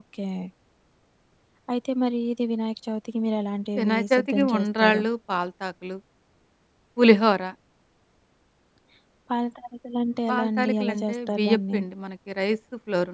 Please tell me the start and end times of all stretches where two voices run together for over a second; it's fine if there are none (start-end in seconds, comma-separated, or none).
3.8-5.0, 10.3-11.8